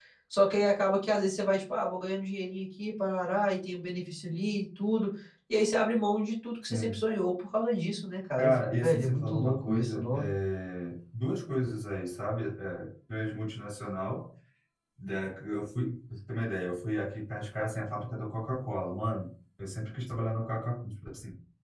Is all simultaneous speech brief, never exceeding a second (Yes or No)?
No